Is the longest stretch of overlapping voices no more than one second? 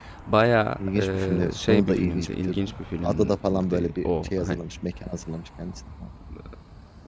No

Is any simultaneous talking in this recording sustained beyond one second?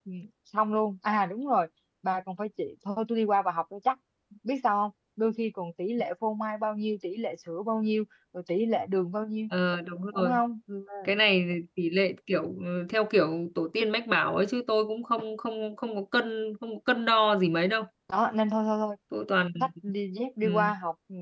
No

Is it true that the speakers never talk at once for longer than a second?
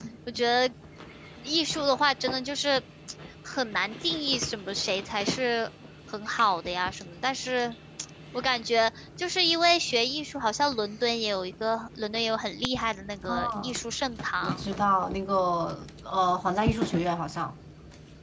Yes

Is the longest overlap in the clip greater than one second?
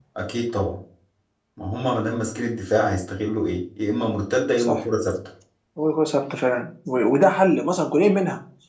No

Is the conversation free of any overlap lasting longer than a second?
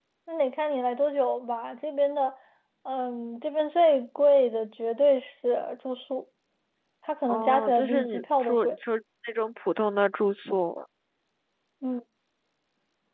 No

